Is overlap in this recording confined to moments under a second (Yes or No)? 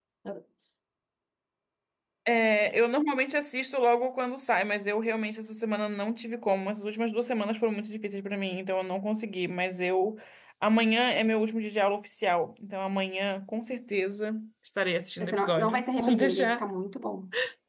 No